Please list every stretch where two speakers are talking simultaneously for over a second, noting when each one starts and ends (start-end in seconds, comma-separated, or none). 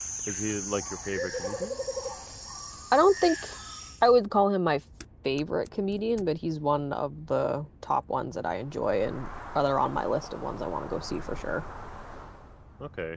none